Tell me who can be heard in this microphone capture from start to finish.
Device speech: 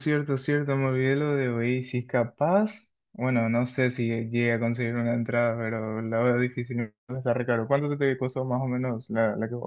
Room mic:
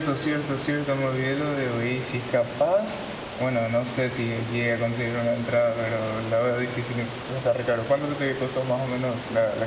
echo only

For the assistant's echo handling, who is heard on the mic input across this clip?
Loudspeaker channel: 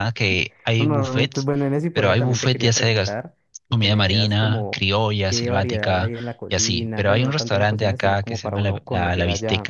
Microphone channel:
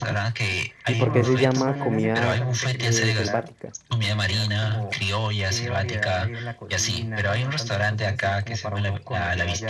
both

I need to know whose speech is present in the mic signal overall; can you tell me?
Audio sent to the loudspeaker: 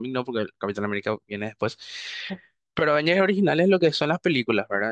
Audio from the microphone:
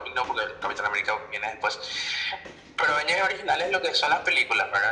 echo only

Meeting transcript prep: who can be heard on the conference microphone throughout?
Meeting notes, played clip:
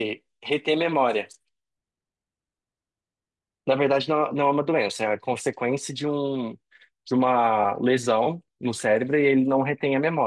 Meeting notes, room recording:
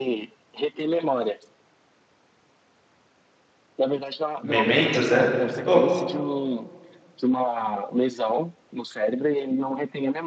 both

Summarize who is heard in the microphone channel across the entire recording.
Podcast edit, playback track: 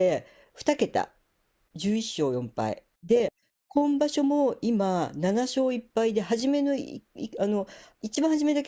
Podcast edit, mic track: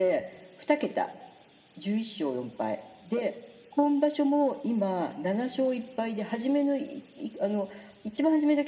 echo only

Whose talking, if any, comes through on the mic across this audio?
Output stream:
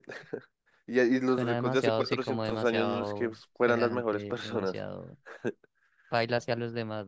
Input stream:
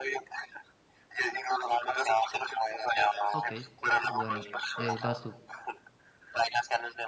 both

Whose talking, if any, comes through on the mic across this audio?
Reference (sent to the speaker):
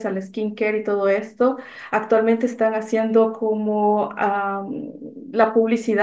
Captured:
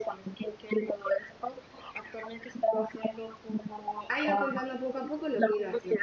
both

